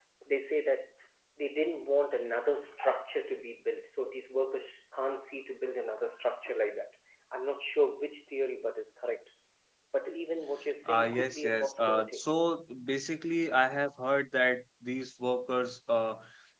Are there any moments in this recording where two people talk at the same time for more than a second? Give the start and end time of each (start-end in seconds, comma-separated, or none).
10.9-12.2